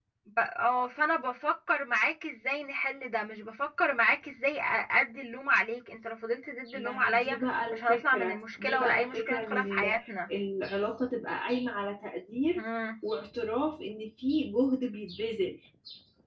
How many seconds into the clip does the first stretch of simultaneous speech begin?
7 s

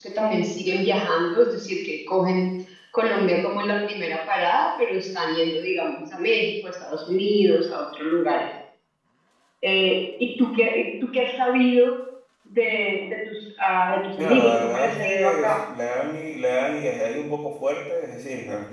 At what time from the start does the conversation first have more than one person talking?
14 s

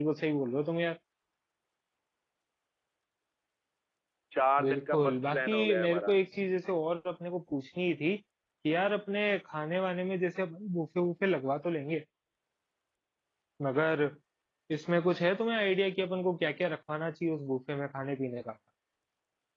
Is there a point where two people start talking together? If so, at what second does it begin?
5 s

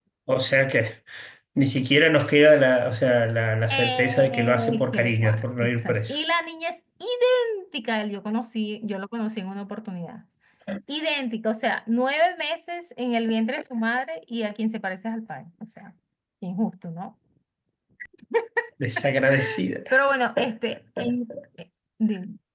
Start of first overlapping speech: 4 s

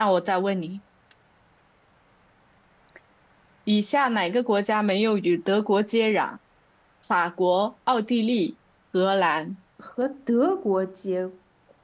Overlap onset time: none

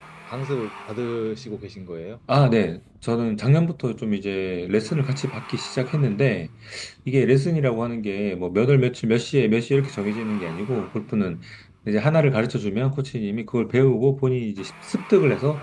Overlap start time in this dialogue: none

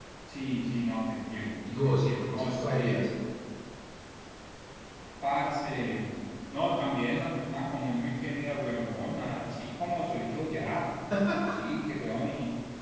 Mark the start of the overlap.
2 s

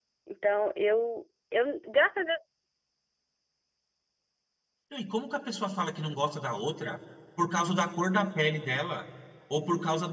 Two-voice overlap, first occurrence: none

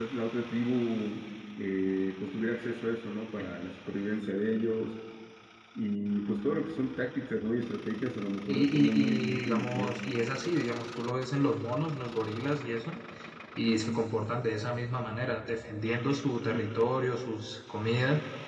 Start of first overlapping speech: 8 s

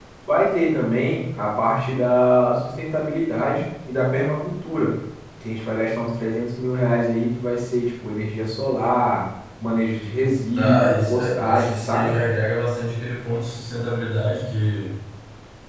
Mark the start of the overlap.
11 s

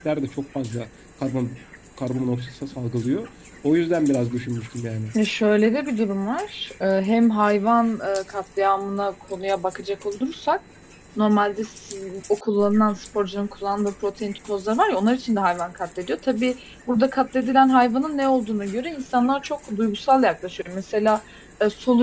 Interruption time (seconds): none

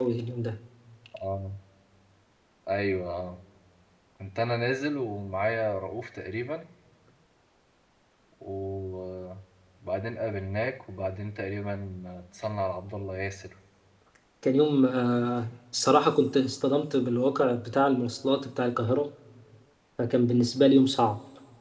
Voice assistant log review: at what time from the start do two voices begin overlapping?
none

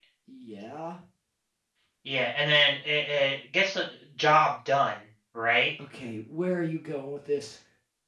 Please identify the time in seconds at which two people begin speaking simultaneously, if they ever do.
none

